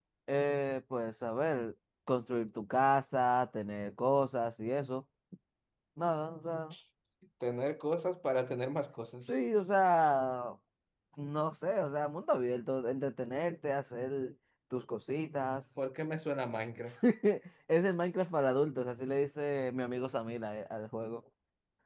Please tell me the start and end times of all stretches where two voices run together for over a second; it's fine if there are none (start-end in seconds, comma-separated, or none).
none